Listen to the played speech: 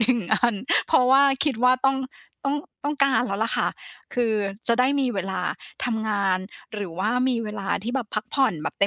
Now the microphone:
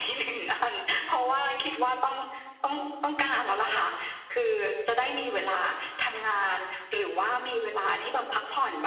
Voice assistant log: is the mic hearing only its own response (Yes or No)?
Yes